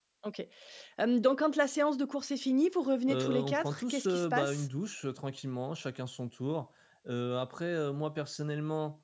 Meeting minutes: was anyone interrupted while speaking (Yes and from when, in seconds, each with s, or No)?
Yes, from 3.1 s